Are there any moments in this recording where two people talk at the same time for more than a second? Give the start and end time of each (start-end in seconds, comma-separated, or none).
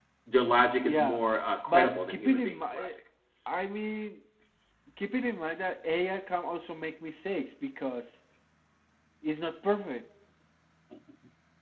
1.7-2.9